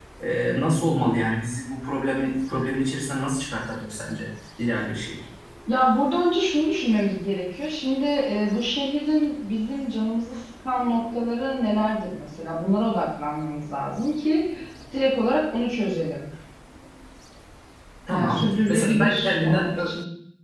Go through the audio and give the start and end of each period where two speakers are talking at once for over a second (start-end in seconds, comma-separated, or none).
18.1-19.7